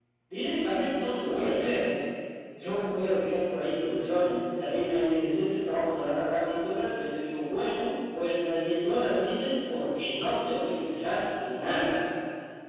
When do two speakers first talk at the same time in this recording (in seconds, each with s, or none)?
none